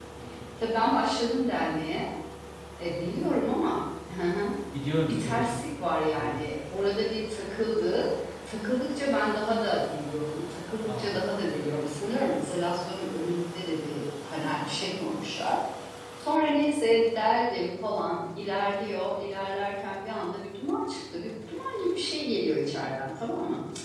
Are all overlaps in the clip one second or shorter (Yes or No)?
Yes